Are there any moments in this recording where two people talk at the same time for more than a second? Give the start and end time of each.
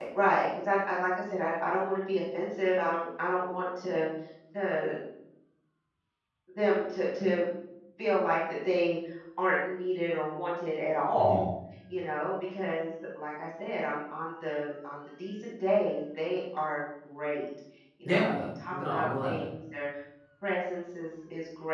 18.0-19.5

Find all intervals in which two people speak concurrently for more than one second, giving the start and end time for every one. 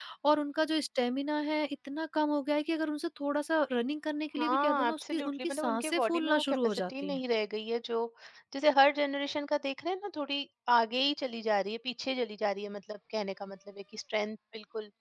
4.4-7.2

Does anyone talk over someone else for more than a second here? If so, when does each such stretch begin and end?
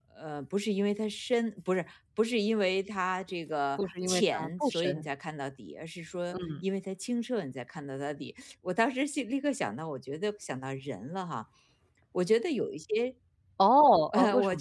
3.8-5.1

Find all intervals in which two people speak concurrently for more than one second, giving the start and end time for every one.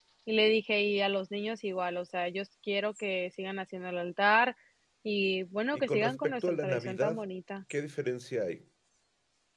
5.7-7.2

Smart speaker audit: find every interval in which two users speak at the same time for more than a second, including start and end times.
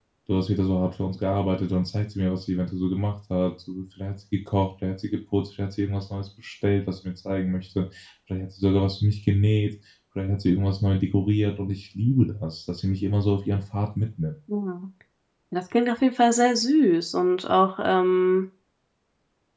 none

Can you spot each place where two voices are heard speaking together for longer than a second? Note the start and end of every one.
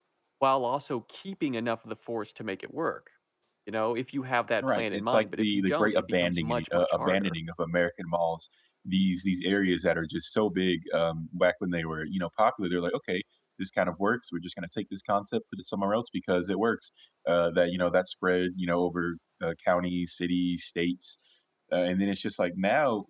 4.8-7.3

